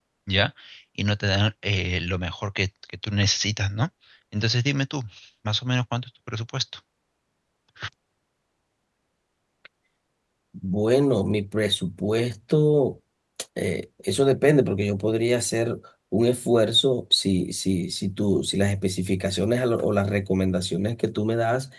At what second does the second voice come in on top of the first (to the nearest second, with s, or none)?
none